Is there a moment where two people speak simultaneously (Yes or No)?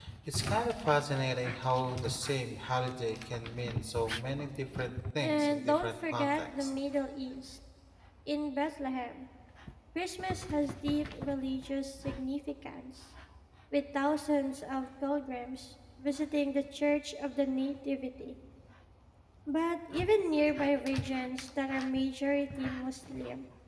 Yes